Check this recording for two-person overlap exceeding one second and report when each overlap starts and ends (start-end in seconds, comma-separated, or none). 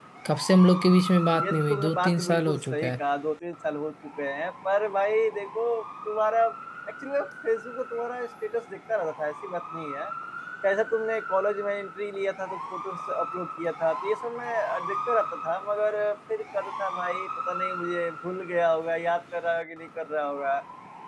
1.4-2.9